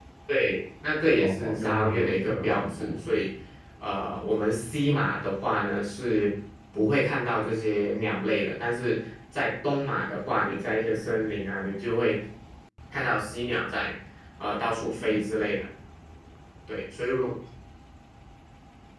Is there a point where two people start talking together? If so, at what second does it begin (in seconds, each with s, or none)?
1.2 s